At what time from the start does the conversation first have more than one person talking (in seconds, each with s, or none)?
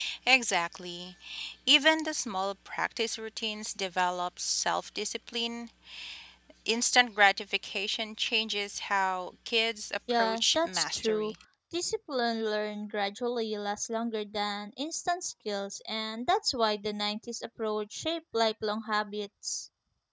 10.1 s